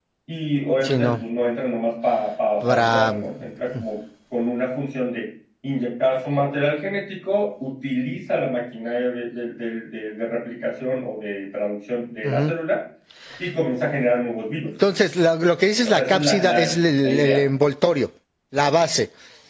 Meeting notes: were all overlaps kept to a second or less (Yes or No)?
No